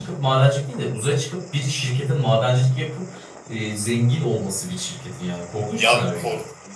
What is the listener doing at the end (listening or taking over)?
taking over